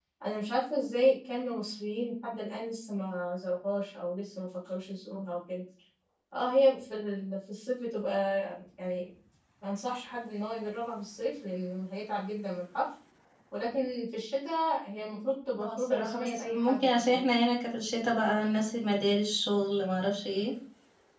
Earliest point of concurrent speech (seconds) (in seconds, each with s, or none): 15.6 s